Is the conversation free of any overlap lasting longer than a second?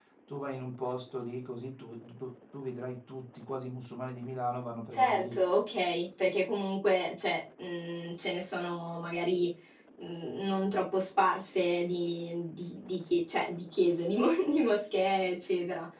Yes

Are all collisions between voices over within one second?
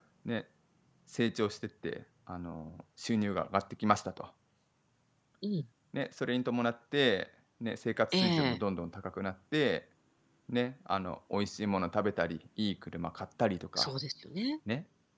Yes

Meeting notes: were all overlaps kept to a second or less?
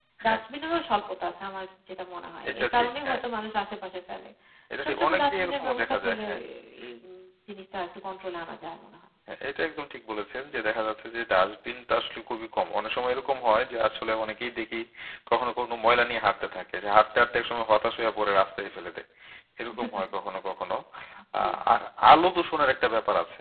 No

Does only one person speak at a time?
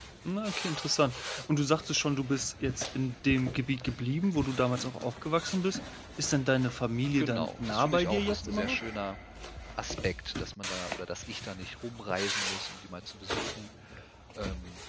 No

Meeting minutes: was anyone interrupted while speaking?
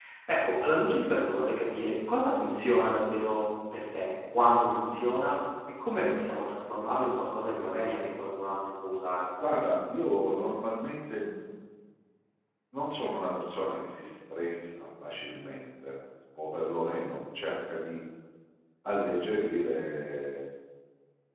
No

